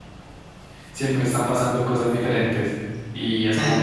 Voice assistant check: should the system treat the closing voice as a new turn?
No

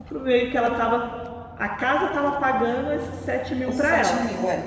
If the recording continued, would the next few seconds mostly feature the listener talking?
Yes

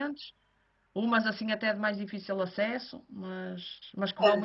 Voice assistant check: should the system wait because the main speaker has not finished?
No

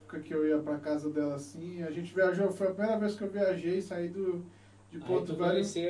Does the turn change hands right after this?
Yes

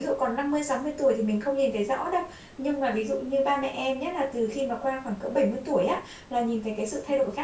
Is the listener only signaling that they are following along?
Yes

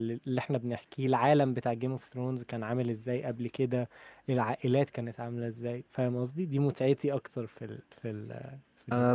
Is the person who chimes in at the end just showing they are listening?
No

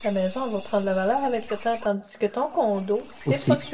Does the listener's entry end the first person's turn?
Yes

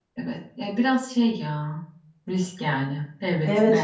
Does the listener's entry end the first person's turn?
Yes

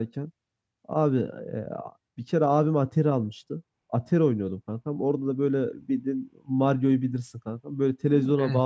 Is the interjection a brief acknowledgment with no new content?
Yes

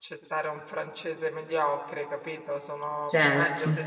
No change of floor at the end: Yes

